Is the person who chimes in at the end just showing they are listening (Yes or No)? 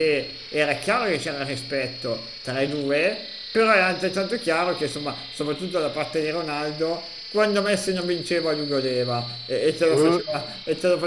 Yes